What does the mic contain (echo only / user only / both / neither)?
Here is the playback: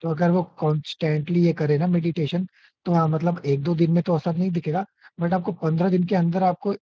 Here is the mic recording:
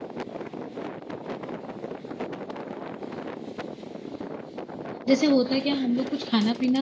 user only